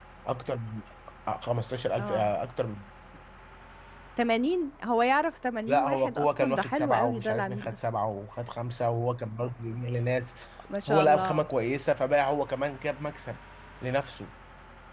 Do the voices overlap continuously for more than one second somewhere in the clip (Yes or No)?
Yes